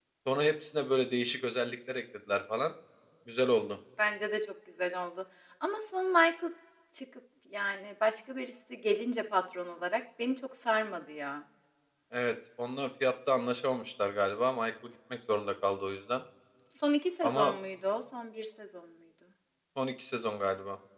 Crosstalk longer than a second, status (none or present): none